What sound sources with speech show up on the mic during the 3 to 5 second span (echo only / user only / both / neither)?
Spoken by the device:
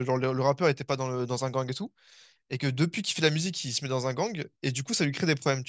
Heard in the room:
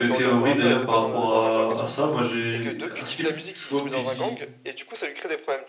both